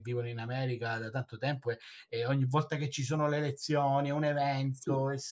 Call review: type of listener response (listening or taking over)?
taking over